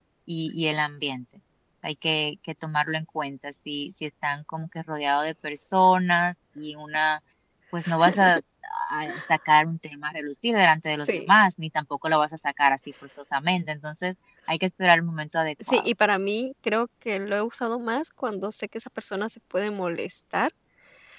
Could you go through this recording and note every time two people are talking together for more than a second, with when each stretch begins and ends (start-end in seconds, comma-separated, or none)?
none